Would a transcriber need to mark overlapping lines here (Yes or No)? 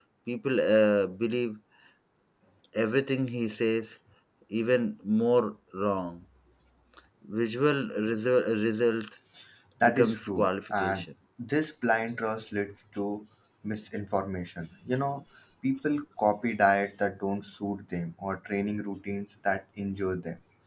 Yes